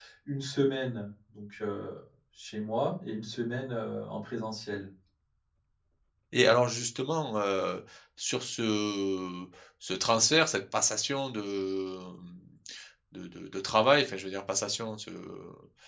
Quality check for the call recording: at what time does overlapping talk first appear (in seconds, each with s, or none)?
none